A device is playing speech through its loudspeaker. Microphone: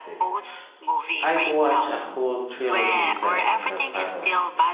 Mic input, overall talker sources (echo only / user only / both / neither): both